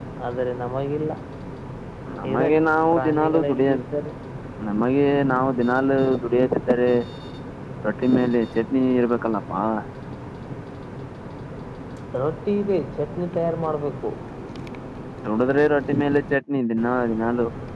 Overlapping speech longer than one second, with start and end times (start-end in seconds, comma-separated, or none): 2.3-3.7